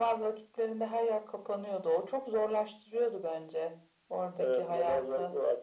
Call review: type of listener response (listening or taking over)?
taking over